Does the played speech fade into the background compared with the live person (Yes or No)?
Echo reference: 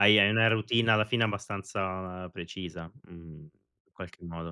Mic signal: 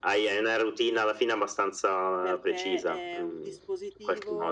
No